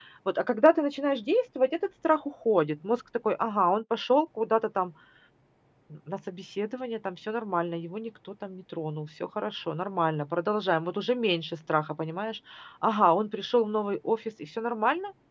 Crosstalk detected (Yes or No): No